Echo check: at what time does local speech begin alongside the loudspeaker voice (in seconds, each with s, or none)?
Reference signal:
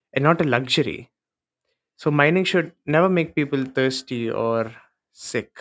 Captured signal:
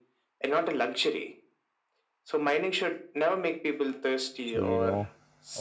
4.4 s